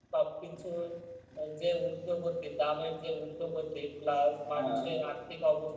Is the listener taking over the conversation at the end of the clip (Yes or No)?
No